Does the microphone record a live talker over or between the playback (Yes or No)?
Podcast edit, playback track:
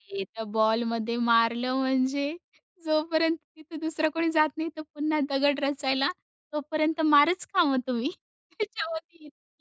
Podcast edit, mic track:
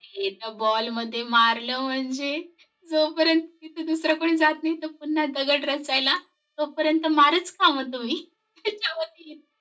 No